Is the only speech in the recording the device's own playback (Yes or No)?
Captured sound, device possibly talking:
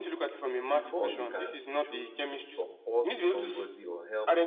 No